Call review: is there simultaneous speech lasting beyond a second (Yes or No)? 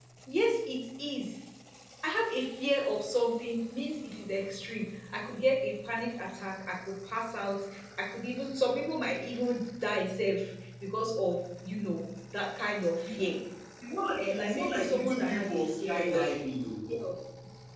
Yes